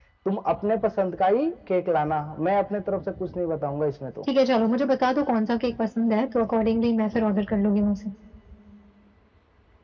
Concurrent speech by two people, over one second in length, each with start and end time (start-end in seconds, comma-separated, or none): none